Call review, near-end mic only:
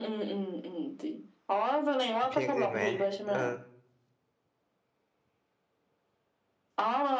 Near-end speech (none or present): present